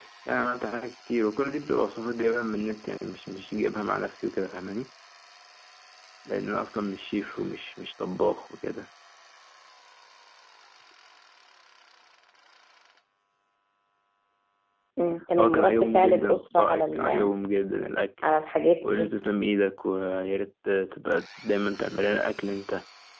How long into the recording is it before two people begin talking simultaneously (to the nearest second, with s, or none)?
15 s